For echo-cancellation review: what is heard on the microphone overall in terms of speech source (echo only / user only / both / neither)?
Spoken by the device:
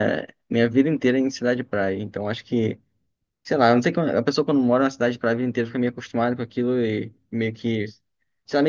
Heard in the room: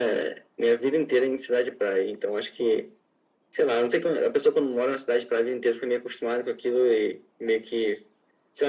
echo only